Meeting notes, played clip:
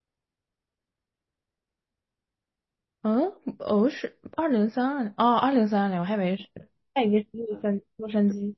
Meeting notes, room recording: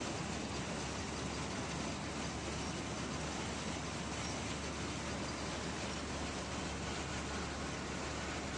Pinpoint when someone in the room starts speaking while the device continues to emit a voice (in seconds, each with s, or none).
none